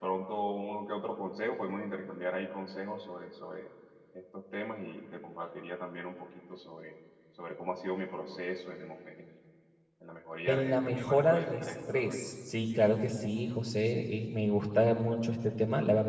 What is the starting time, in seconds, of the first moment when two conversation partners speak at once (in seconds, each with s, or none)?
10.4 s